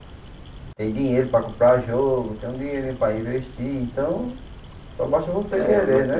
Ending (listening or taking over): taking over